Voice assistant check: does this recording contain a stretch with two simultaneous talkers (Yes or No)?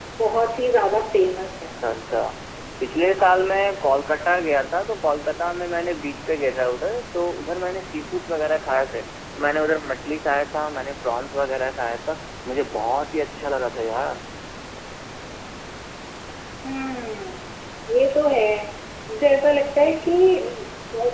No